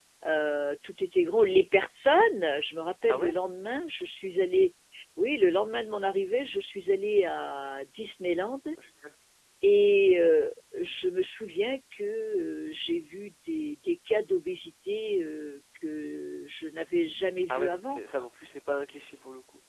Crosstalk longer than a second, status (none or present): none